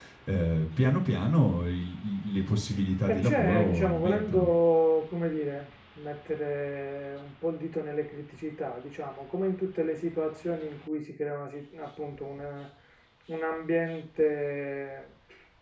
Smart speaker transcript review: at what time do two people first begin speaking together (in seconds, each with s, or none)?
3.1 s